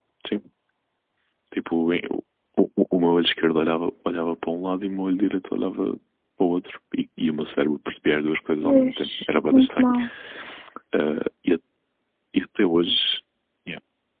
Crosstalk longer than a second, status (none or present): present